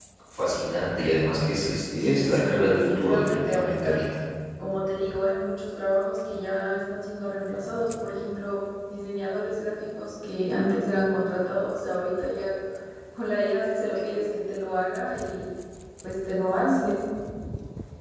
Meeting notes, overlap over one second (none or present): present